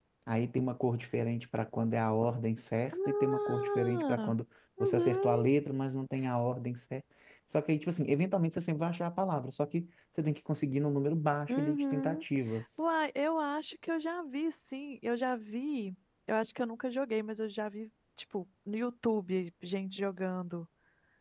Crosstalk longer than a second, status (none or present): present